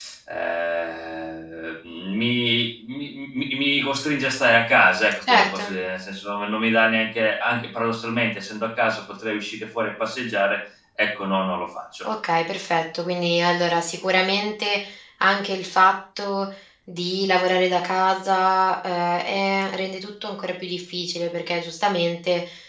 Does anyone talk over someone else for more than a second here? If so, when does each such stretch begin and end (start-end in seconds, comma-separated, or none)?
none